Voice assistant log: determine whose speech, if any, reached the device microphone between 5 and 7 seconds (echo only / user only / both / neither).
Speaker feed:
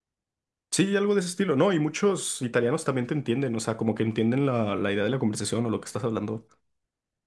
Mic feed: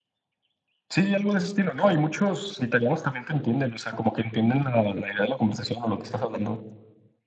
echo only